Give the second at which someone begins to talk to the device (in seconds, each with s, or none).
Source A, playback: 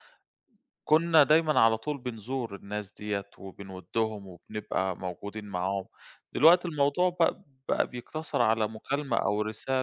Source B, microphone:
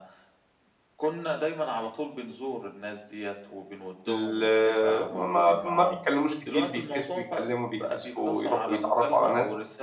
4.1 s